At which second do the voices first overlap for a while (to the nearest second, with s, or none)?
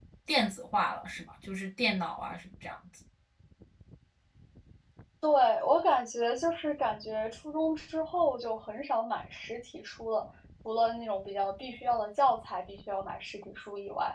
none